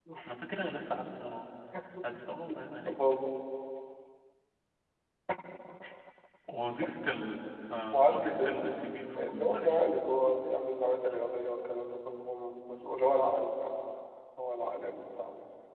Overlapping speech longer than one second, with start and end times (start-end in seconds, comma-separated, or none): 7.9-9.8